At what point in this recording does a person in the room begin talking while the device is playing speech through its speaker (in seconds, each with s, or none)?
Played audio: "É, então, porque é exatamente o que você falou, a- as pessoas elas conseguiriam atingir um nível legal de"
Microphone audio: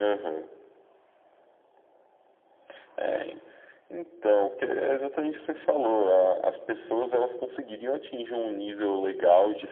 none